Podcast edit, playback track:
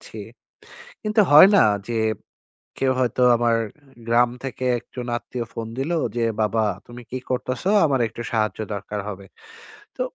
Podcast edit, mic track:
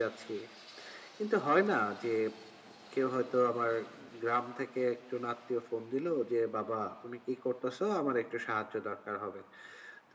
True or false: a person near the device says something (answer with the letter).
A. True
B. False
B